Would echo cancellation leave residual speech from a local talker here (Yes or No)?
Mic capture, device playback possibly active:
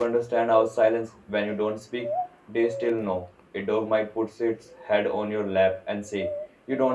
Yes